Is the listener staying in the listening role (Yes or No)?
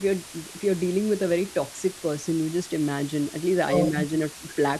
Yes